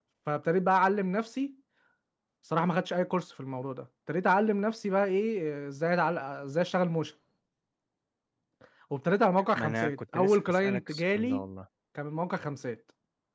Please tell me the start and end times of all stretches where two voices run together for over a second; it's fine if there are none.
9.5-11.4

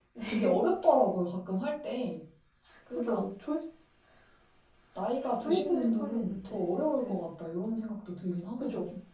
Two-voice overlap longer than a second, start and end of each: 5.2-7.1

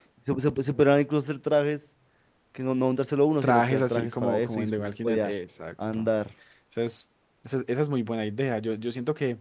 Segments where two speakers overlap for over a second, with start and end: 3.4-5.3

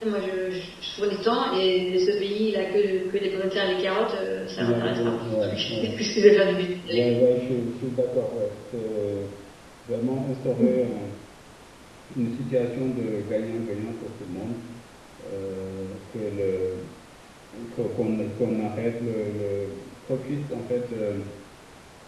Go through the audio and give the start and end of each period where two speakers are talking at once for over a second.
4.6-5.9

